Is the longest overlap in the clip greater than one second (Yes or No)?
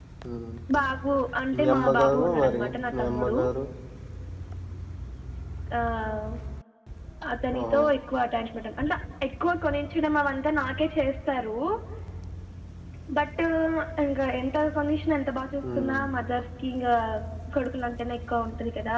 Yes